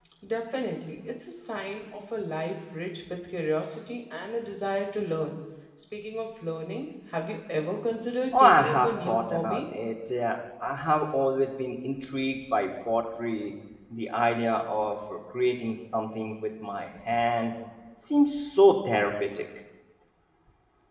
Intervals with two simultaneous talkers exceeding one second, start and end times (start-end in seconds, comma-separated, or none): 8.4-9.6